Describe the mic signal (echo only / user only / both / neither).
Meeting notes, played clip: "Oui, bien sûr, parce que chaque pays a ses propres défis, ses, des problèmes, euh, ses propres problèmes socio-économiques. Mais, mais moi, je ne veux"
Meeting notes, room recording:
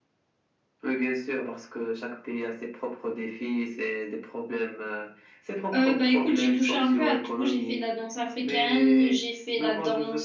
both